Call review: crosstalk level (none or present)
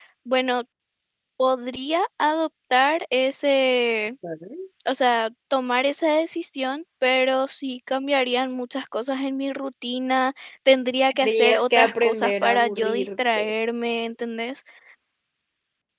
present